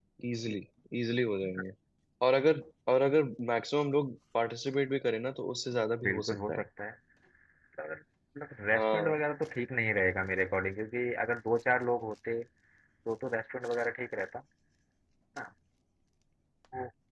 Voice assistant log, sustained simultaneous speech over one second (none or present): none